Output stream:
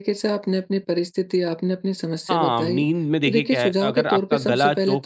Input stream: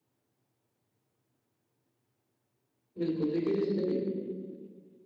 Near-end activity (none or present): present